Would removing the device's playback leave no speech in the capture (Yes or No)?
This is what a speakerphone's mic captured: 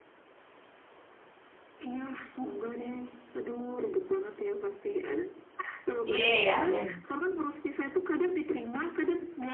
No